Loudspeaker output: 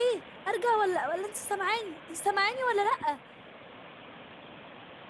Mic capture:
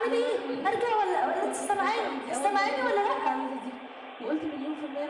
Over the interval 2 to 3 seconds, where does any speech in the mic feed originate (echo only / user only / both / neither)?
both